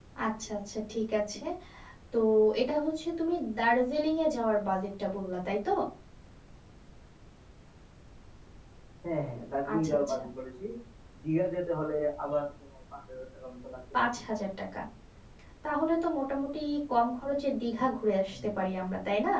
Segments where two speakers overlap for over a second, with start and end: none

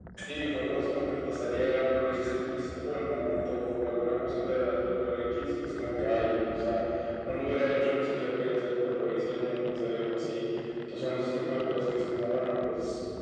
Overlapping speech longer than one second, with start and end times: none

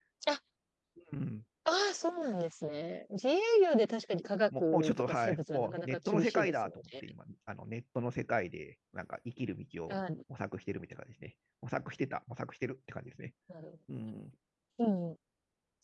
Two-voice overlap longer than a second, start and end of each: 4.6-6.8

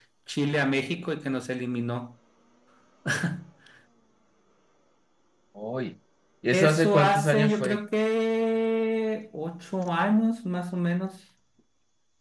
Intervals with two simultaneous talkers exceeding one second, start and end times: 6.5-7.8

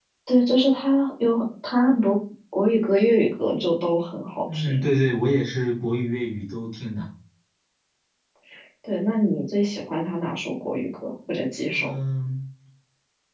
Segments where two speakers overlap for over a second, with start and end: none

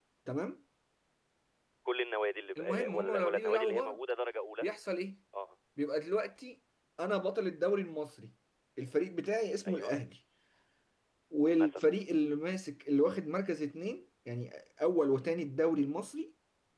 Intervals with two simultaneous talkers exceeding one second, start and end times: 2.6-3.9

